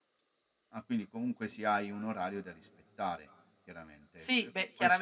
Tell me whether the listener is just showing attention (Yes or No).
No